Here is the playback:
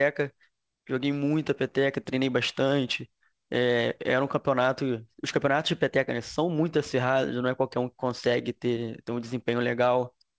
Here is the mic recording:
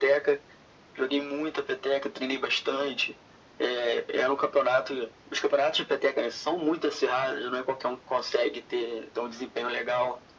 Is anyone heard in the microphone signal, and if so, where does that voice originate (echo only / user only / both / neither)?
echo only